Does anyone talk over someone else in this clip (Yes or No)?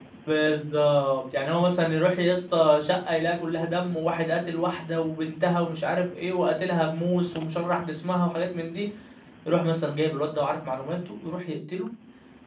No